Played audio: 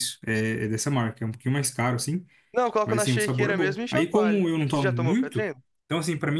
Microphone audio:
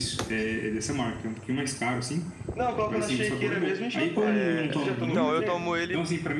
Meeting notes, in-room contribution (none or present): present